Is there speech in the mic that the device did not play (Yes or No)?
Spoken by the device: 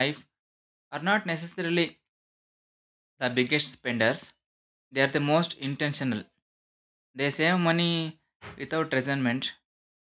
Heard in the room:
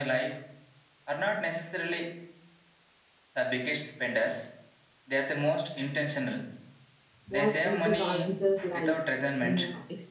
Yes